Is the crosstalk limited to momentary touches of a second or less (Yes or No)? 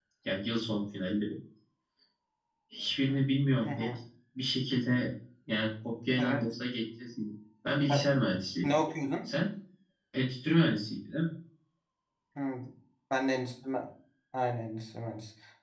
Yes